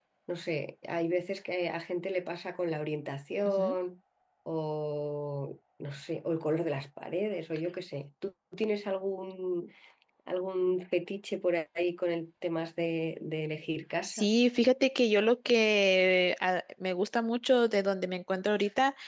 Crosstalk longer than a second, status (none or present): none